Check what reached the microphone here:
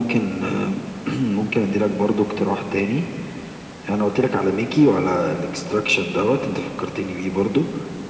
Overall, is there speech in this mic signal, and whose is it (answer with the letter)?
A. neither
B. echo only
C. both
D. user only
B